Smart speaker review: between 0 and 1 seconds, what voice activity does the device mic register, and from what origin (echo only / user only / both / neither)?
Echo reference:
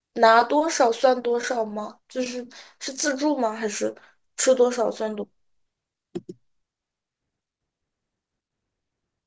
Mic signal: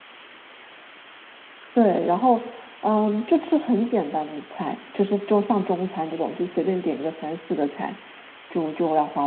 neither